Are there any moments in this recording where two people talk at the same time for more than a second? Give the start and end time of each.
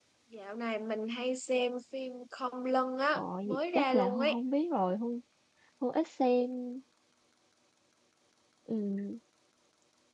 3.1-4.4

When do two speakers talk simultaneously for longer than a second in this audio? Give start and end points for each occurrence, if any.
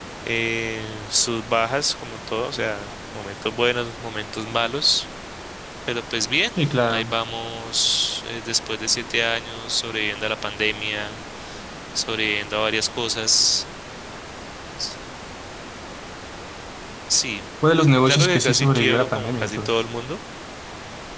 18.1-19.8

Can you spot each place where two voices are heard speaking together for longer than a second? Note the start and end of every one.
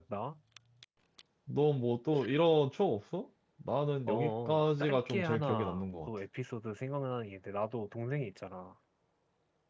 4.1-6.1

